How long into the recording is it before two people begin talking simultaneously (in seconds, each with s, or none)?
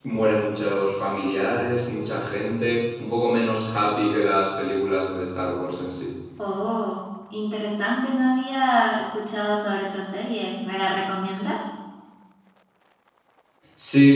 none